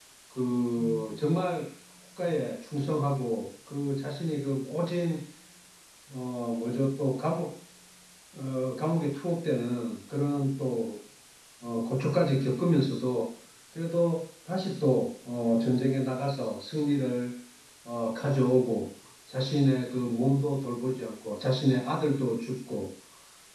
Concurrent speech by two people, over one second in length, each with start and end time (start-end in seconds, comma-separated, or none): none